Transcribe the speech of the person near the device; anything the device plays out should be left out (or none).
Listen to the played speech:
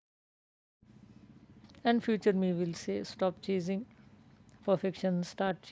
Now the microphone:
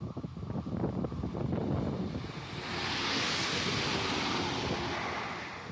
none